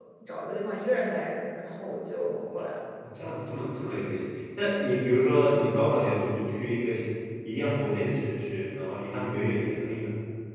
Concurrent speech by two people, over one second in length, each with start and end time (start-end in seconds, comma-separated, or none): none